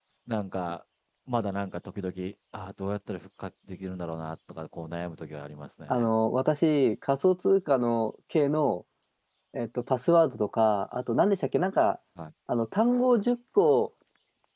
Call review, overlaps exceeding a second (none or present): none